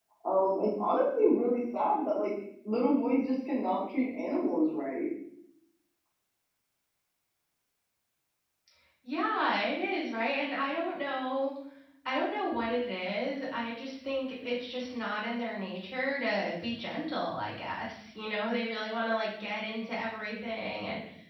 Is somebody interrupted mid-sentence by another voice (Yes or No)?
No